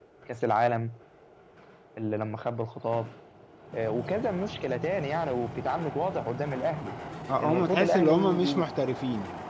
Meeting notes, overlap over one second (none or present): present